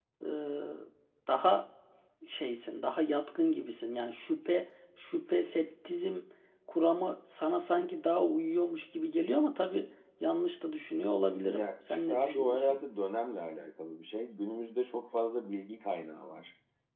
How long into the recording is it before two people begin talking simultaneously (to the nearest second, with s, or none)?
11 s